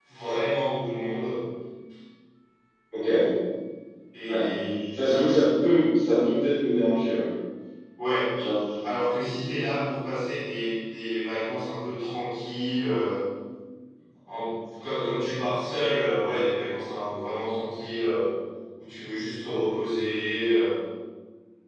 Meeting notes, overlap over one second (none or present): none